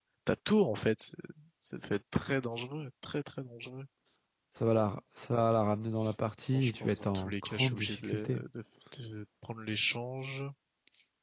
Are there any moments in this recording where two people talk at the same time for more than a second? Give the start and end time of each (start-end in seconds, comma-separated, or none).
6.5-8.4